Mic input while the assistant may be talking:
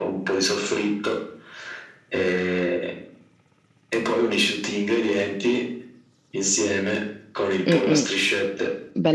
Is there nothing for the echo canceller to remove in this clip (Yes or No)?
No